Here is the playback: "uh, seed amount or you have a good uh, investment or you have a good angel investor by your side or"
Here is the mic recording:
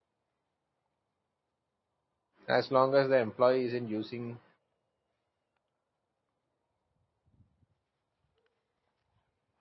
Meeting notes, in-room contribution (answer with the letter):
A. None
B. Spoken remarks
B